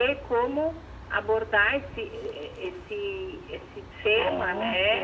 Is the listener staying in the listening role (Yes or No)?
No